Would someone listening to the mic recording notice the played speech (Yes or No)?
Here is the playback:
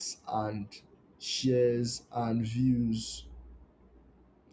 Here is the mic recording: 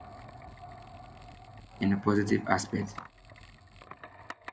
No